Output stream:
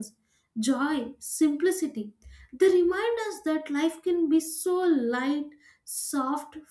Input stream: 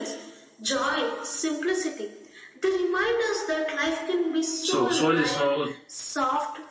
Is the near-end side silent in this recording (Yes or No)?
No